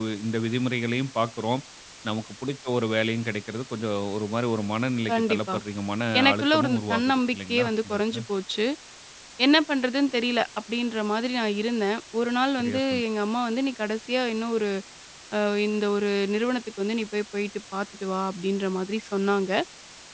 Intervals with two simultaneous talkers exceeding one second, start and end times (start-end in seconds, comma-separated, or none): 6.2-8.2